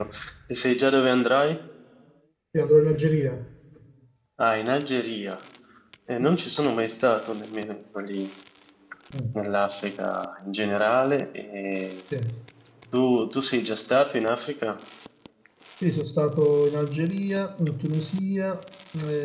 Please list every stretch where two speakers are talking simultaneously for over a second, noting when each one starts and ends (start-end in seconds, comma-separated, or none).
none